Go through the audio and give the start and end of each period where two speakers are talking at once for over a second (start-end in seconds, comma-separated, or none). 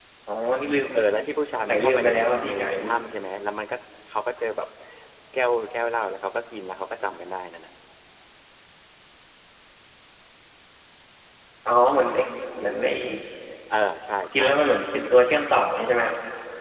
1.6-2.9